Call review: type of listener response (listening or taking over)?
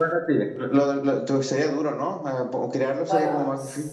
taking over